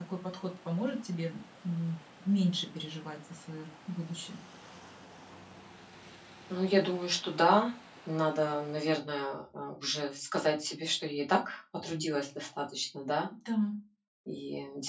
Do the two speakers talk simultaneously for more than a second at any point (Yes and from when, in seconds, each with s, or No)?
No